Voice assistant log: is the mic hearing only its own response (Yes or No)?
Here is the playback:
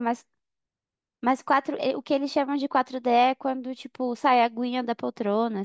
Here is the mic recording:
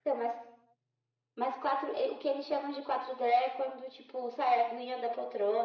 Yes